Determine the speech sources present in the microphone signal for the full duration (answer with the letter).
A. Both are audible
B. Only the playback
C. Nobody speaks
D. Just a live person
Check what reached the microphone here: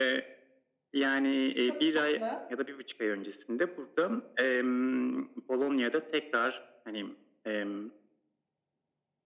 A